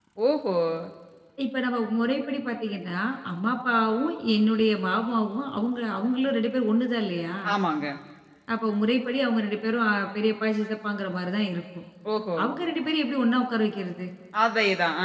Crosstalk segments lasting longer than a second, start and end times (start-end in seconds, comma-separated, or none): none